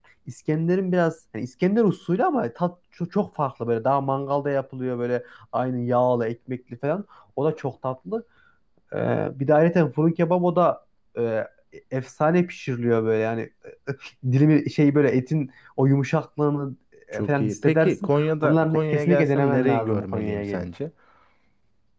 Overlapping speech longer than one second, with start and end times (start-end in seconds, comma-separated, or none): 17.1-20.6